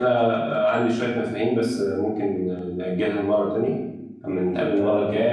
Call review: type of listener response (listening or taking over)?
listening